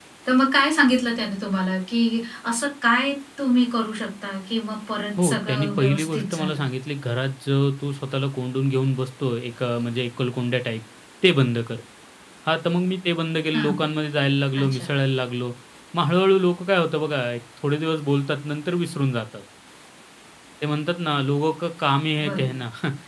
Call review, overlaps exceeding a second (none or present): present